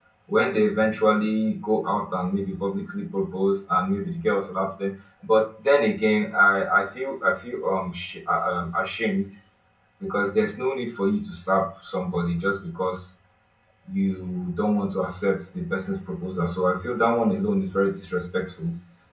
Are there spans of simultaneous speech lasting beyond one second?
No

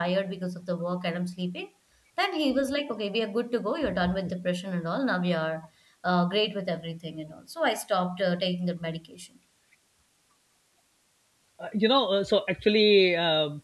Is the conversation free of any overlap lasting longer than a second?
Yes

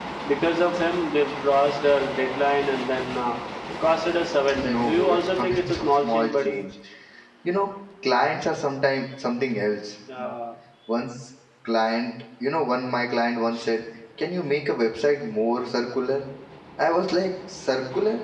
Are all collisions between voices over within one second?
No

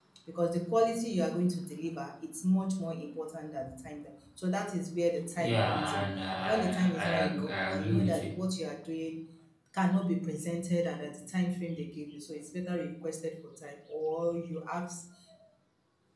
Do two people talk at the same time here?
Yes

